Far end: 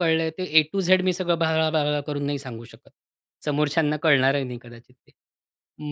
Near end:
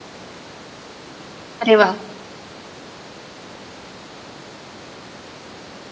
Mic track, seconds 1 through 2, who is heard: user only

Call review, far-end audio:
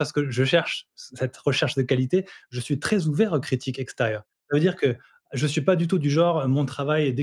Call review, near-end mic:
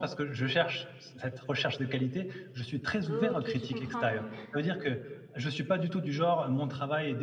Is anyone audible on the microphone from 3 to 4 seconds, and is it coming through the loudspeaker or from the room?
both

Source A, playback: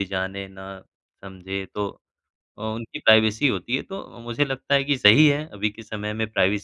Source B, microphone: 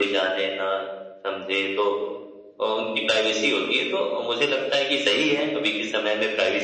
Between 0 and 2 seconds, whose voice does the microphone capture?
echo only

